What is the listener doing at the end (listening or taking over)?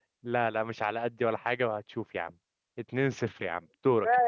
taking over